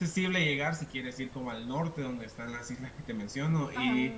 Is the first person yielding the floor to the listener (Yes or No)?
No